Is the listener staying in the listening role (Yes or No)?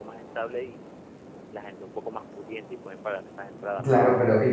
No